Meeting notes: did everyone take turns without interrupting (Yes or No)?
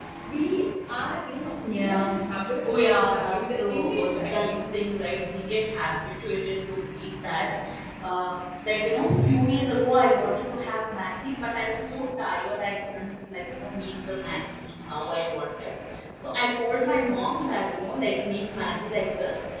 No